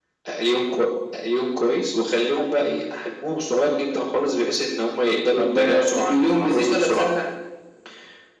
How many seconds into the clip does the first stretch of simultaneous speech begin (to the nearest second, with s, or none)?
5 s